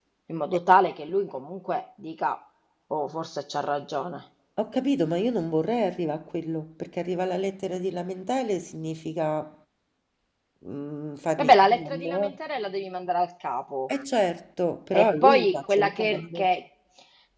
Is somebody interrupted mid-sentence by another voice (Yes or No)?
Yes